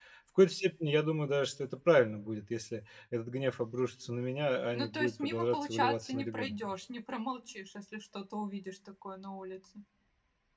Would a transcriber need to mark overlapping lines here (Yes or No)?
Yes